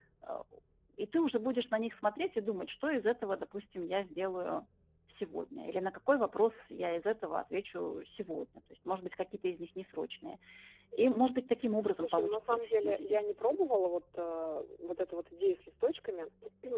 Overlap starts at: 12 s

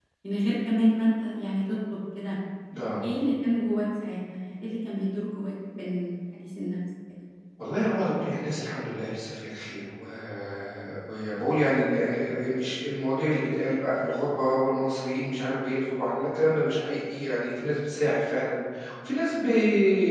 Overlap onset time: none

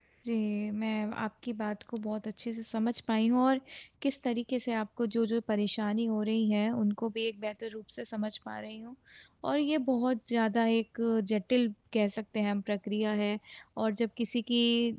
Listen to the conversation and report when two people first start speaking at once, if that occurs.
none

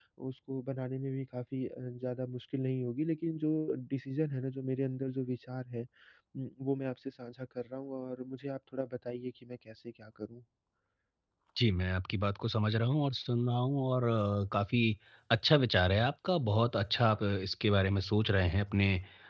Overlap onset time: none

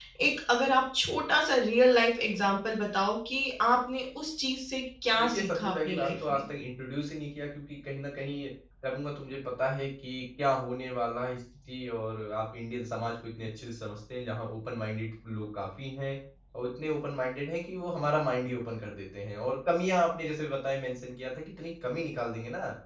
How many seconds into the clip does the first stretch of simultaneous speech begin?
5 s

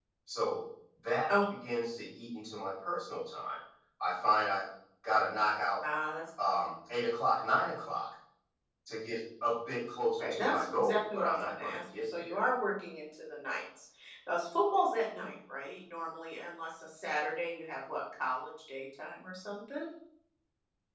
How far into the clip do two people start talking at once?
10 s

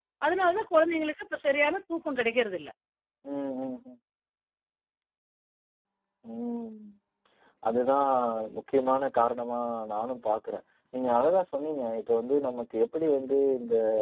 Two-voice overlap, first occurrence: none

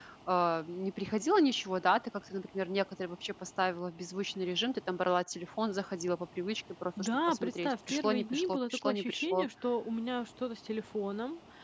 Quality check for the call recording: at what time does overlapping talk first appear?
7 s

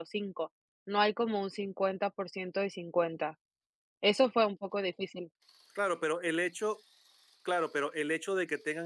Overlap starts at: none

